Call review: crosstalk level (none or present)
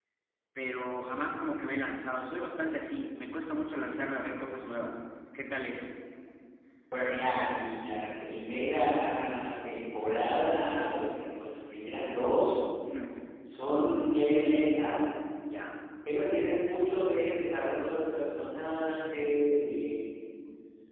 none